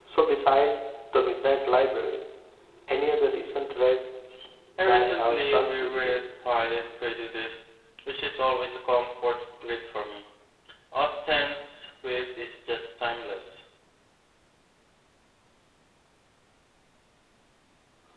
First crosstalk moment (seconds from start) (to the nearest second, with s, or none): 5 s